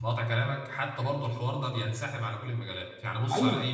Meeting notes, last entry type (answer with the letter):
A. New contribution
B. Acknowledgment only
B